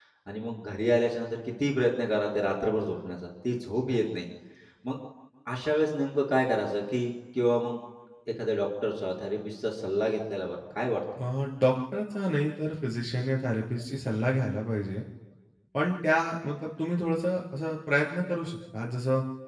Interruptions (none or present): none